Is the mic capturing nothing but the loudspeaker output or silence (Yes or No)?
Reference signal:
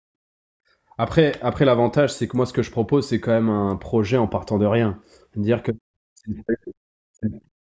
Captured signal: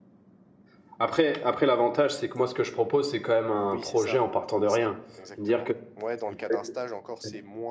No